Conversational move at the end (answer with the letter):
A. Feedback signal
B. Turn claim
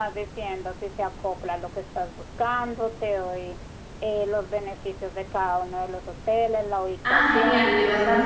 B